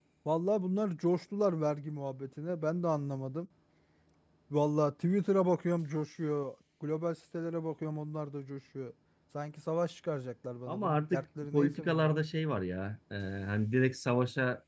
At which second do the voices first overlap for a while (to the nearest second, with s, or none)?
11 s